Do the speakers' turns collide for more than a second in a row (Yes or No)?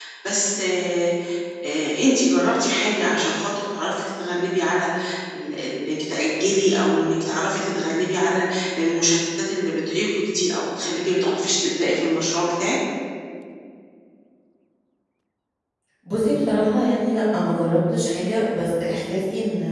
No